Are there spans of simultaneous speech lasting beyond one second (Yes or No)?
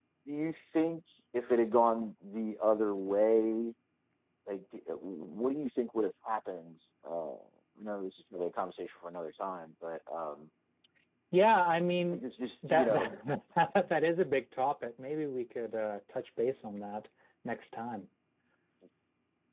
No